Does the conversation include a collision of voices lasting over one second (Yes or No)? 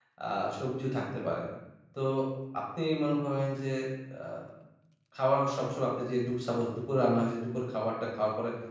No